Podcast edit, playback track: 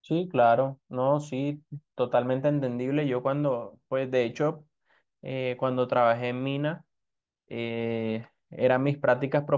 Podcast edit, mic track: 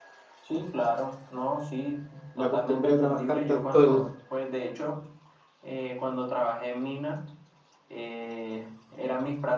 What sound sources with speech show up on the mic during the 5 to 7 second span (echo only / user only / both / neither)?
echo only